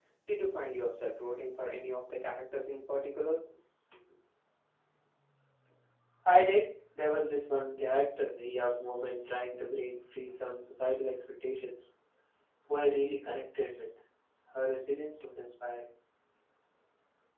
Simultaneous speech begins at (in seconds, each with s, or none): none